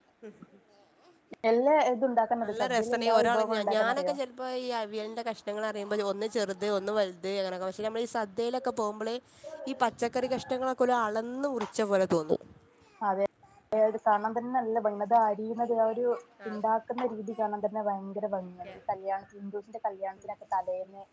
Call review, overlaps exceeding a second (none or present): present